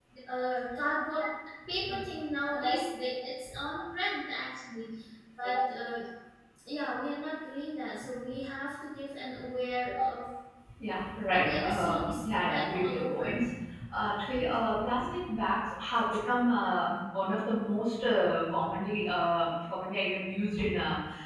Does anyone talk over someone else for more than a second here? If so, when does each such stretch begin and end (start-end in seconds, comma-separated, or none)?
11.3-13.4